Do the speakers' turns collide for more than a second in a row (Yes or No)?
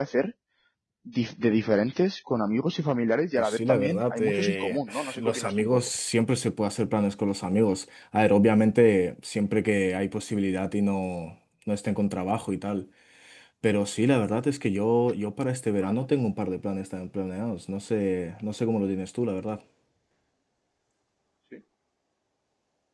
Yes